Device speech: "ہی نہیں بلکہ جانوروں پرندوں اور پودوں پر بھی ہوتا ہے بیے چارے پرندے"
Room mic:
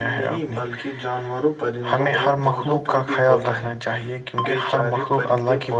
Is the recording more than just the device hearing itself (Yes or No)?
Yes